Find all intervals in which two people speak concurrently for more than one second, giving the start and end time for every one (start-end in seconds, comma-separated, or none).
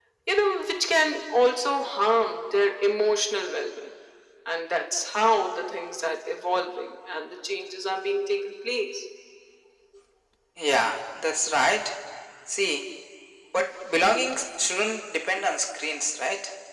none